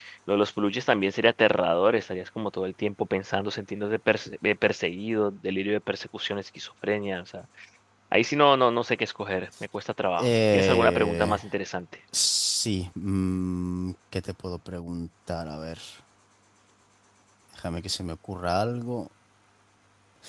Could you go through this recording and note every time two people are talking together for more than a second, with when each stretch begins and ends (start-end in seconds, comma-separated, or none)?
10.2-11.4